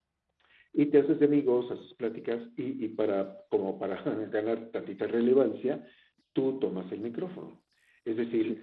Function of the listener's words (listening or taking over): listening